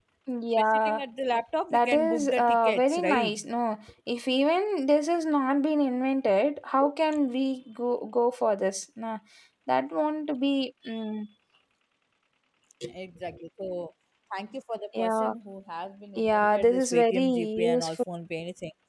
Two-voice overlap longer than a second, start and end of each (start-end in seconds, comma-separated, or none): 1.7-3.3, 16.2-17.9